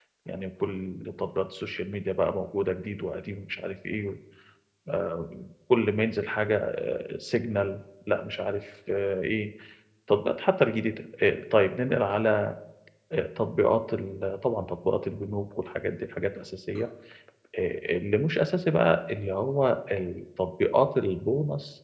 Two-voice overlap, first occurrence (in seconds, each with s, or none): none